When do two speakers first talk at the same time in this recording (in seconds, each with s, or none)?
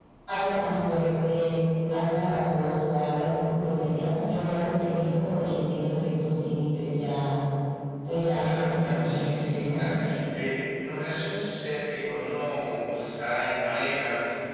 8.3 s